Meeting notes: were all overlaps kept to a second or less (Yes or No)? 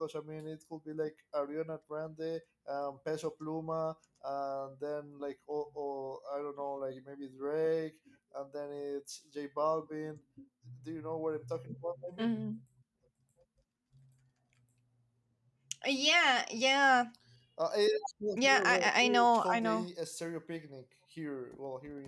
No